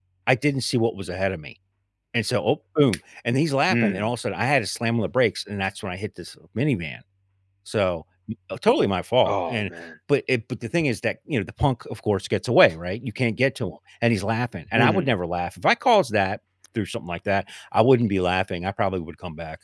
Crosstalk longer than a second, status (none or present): none